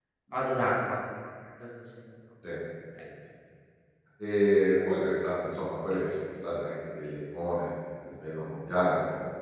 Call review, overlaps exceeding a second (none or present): none